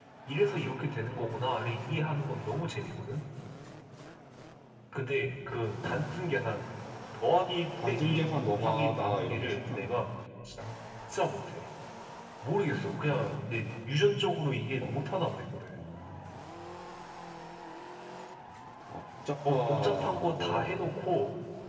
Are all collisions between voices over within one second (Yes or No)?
No